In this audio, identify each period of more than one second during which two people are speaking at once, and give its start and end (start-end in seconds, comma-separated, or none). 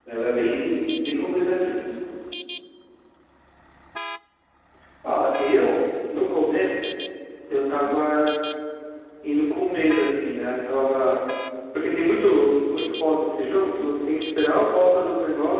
none